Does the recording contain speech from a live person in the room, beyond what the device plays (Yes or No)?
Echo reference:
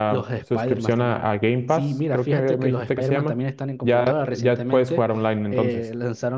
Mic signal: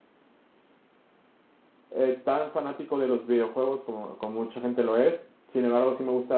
Yes